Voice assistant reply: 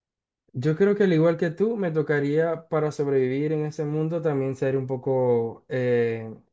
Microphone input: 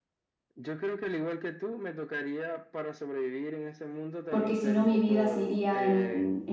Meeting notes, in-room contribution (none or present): present